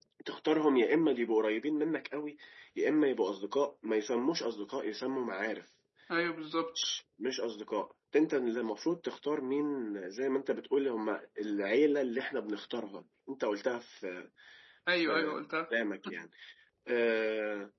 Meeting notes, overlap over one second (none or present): none